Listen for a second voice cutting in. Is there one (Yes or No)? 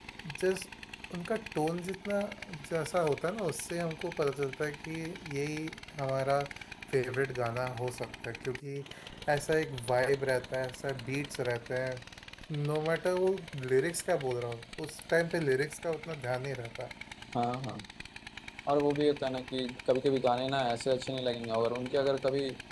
No